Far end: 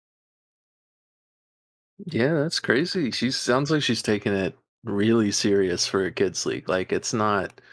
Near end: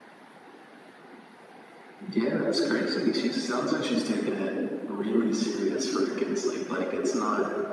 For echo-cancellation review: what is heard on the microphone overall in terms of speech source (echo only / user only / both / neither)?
echo only